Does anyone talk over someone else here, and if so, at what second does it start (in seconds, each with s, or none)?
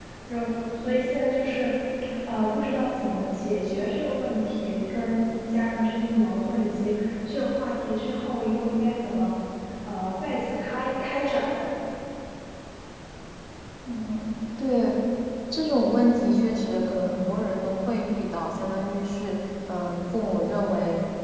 none